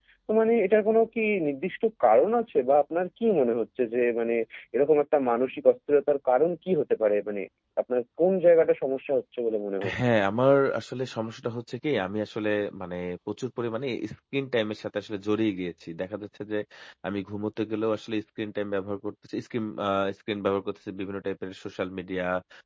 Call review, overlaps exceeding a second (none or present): none